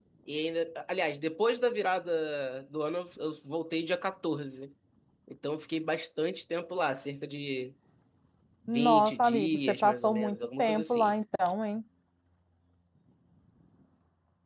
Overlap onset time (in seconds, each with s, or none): 8.7 s